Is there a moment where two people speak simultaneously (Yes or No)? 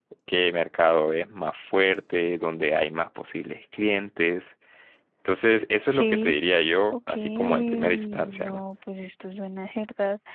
Yes